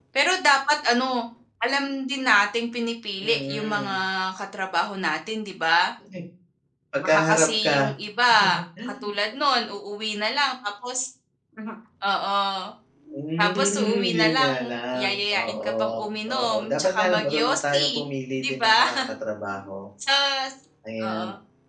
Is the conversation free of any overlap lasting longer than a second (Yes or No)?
No